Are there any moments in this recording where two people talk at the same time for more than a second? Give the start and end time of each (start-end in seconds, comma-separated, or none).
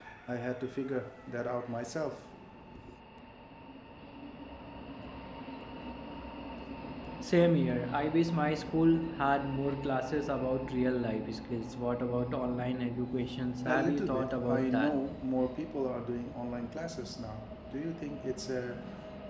13.7-14.9